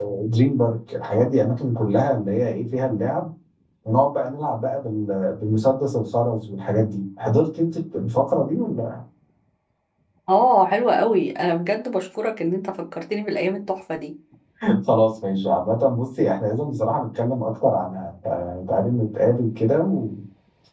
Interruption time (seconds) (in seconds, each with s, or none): none